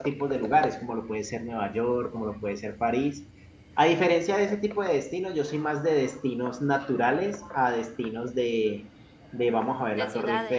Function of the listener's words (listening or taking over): listening